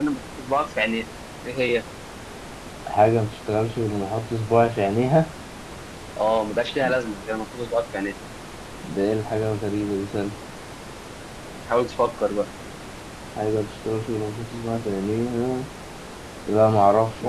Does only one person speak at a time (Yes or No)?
Yes